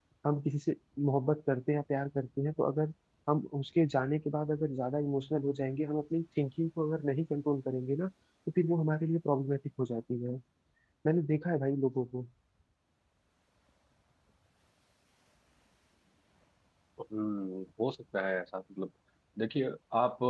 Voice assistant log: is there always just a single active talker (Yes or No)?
Yes